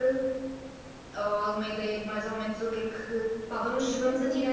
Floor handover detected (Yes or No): No